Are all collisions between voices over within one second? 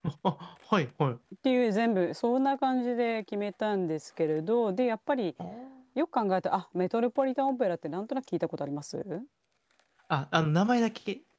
Yes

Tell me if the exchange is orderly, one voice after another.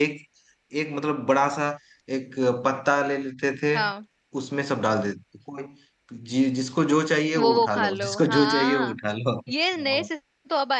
No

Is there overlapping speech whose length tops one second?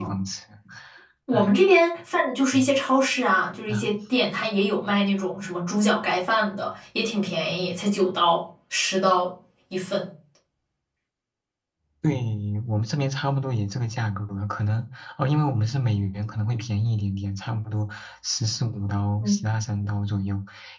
No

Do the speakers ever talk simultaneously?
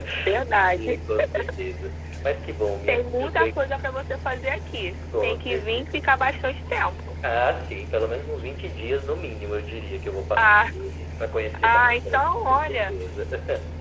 Yes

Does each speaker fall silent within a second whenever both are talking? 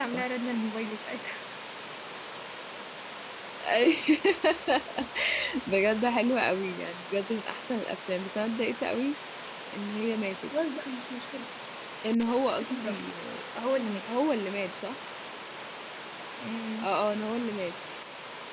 Yes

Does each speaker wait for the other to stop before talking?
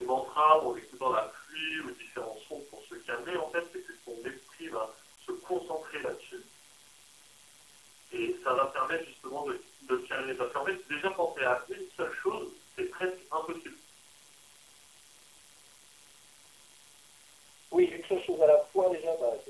Yes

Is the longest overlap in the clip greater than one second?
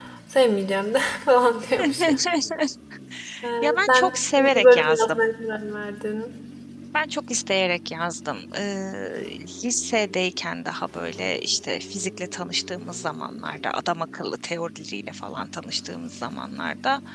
Yes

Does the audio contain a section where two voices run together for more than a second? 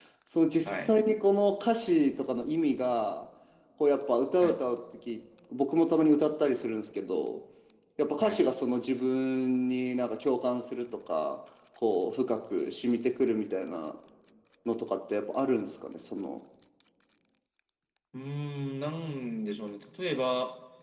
No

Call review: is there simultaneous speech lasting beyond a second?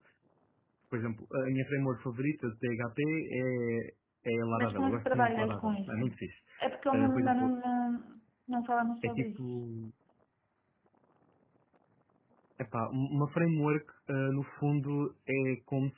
Yes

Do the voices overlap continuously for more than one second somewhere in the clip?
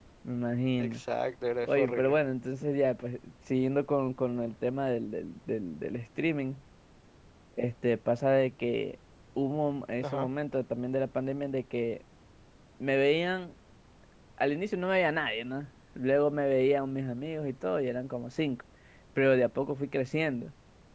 No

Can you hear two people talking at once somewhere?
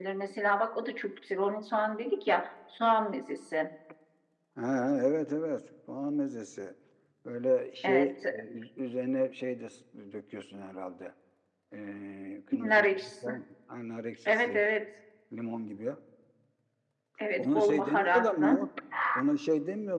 Yes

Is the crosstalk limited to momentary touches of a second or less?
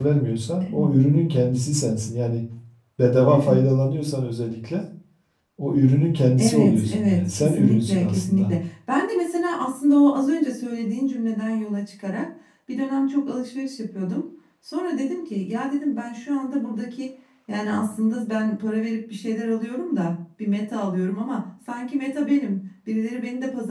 No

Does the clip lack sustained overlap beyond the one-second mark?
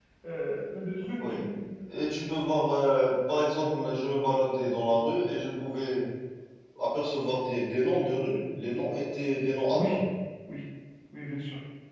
Yes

